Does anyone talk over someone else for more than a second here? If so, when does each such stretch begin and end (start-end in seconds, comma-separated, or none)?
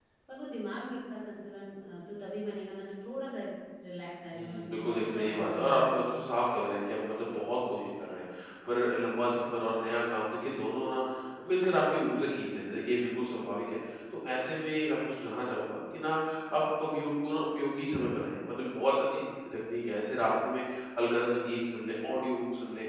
4.3-6.1